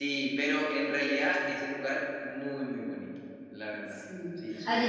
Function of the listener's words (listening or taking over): taking over